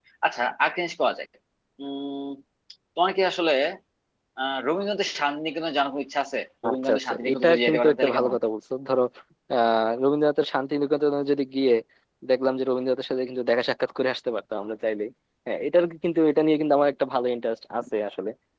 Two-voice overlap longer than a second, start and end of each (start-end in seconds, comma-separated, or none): 6.7-8.4